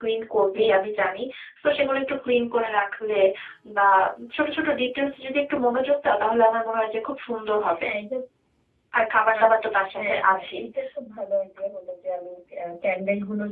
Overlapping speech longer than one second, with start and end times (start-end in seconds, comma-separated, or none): 9.4-10.6